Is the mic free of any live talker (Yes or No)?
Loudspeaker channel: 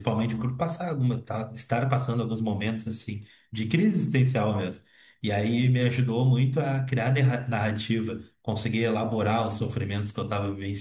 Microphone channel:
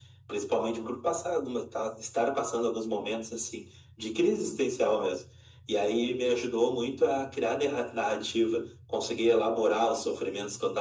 Yes